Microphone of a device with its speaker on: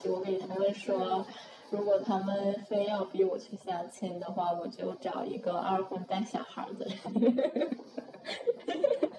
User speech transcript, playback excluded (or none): 嗯